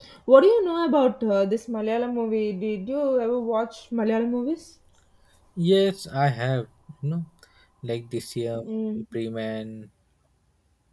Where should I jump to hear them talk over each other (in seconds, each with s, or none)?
none